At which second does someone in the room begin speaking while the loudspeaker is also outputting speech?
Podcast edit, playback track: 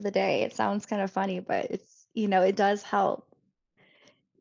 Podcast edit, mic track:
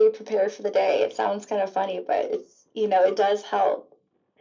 none

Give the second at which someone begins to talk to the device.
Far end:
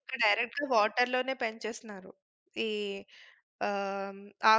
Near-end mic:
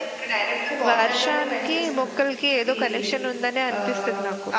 0.9 s

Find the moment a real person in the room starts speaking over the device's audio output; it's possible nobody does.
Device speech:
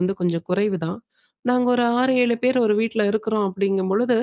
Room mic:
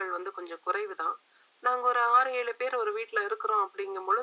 none

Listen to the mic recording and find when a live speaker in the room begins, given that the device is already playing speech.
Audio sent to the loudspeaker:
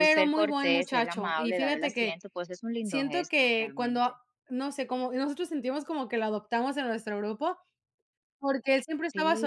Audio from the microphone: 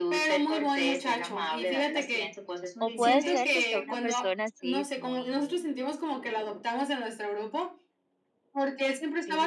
2.8 s

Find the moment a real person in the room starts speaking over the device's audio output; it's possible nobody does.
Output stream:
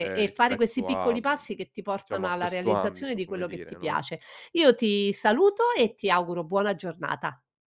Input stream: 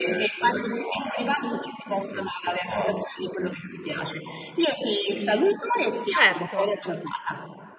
6.1 s

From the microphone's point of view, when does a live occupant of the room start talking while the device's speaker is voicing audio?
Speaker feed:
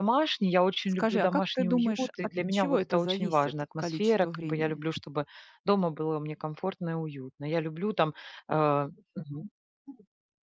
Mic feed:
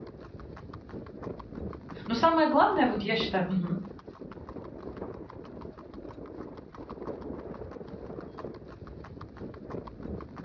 2.1 s

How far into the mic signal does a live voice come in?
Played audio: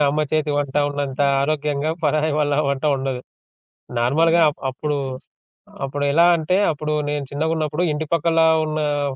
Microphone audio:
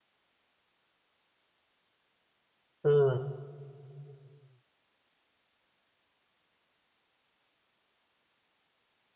2.9 s

